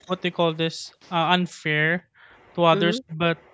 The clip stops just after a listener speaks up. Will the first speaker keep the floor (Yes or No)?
Yes